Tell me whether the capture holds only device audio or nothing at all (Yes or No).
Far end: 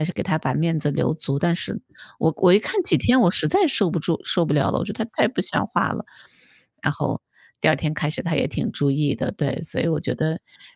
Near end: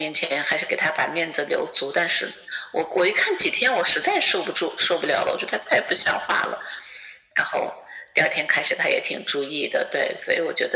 Yes